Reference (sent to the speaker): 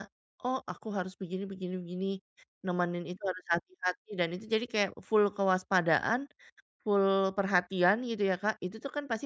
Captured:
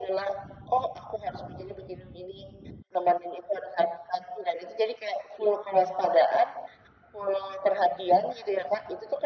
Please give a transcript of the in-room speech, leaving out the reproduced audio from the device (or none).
none